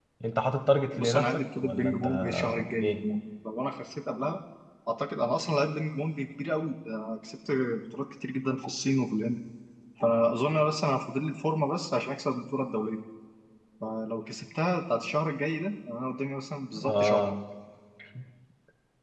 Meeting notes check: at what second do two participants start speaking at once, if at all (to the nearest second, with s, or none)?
1 s